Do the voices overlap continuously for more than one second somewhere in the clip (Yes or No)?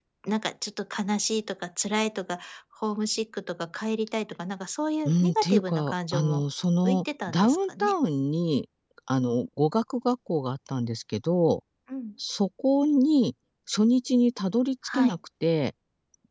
Yes